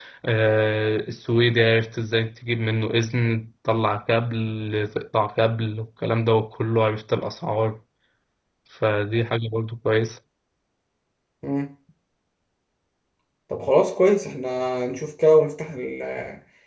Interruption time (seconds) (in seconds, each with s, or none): none